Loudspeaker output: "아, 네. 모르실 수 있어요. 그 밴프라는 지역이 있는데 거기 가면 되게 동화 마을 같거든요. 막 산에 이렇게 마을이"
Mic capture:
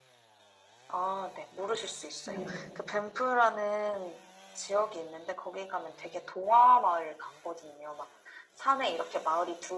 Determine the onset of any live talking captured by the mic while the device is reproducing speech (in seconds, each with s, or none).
2.2 s